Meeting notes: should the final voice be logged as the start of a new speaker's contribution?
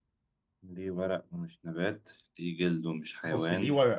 Yes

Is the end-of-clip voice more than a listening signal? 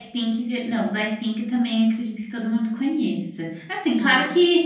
No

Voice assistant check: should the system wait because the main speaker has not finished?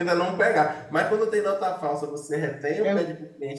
Yes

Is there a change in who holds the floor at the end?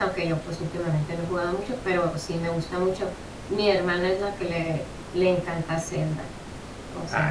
Yes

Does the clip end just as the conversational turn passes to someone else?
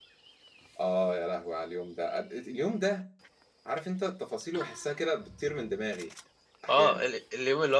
Yes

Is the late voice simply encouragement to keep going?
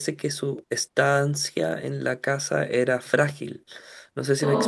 Yes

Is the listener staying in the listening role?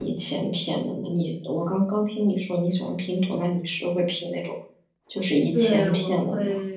No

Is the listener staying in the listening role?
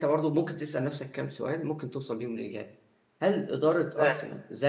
Yes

